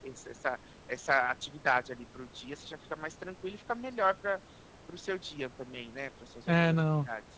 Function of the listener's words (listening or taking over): taking over